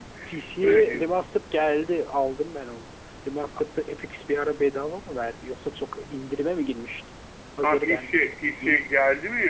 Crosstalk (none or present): present